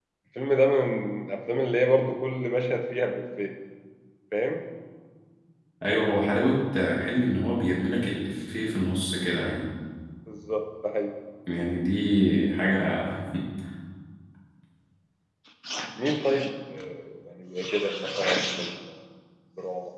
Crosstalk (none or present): none